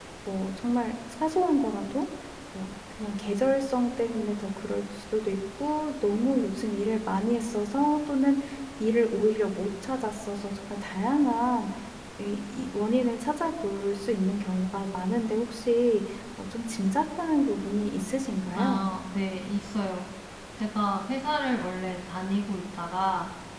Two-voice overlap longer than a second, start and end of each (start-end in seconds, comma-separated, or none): none